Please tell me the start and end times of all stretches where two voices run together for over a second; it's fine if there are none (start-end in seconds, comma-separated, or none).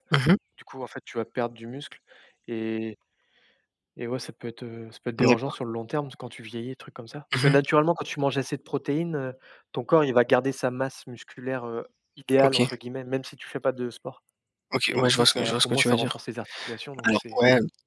14.9-16.1